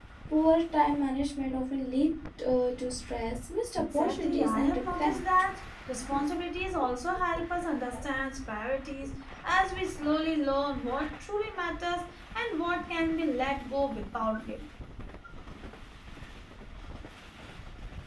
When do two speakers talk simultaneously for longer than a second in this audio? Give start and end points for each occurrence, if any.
3.8-5.2

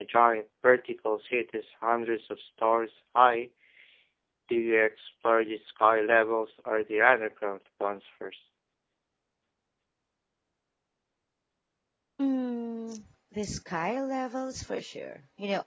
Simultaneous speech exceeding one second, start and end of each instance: none

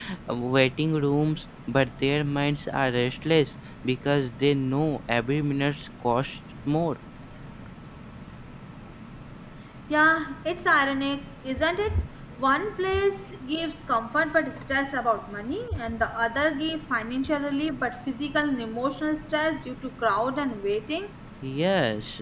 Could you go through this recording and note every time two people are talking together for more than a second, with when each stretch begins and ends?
none

